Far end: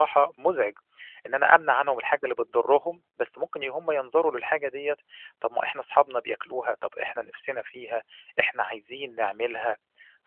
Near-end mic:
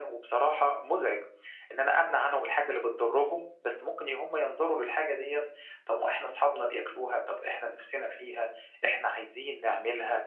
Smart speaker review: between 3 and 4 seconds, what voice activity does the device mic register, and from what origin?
echo only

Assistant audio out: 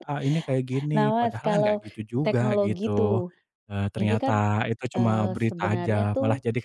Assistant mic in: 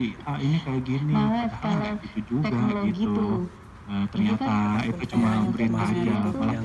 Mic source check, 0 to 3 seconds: echo only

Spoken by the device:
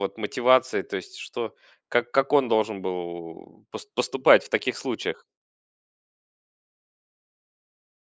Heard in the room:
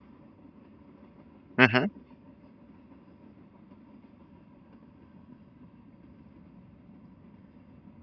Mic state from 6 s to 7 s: neither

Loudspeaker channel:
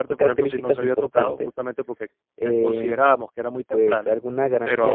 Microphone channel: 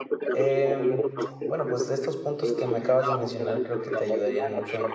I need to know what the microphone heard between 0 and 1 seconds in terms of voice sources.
both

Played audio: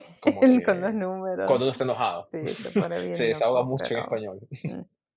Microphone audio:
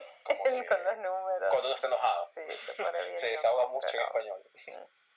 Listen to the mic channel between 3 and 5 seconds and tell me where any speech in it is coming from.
echo only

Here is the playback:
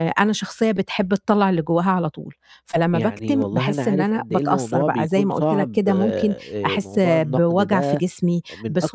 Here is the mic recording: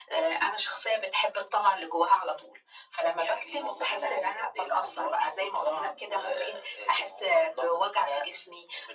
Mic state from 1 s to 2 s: echo only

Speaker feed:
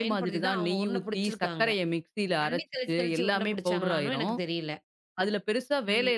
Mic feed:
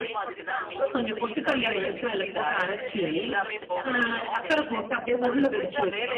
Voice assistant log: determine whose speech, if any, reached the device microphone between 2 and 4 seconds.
both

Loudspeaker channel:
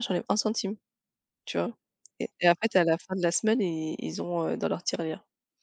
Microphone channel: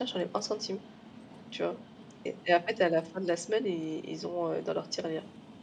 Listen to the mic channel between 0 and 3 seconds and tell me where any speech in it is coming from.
echo only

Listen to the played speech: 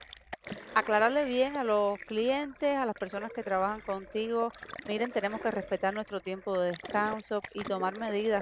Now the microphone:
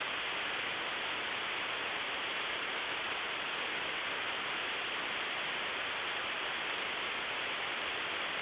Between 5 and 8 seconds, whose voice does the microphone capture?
neither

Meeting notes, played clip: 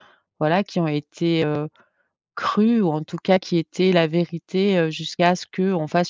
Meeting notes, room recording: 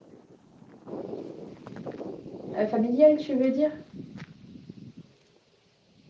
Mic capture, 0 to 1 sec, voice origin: neither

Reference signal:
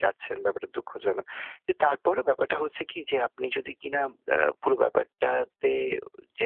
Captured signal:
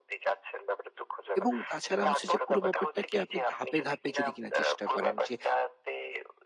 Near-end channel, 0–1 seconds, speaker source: echo only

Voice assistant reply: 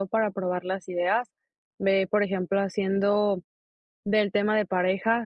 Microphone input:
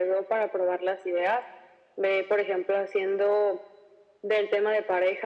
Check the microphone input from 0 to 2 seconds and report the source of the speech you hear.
echo only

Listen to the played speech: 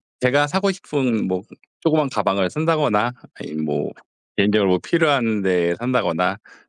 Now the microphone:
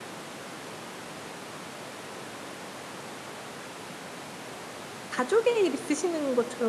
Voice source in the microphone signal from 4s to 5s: neither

